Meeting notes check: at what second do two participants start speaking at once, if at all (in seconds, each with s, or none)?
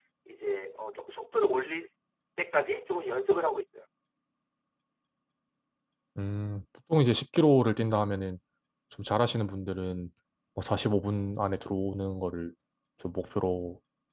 none